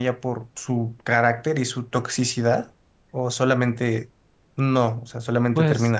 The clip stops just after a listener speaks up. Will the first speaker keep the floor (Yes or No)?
No